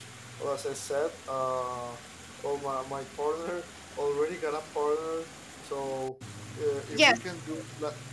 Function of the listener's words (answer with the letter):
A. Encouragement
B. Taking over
A